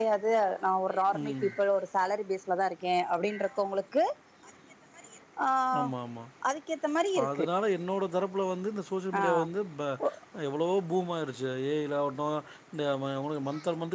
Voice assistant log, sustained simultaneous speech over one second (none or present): none